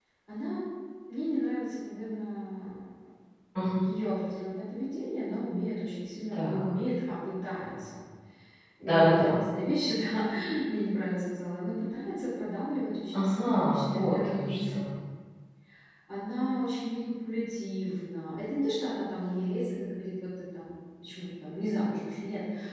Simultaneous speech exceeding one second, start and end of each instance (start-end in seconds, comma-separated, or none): 13.2-14.8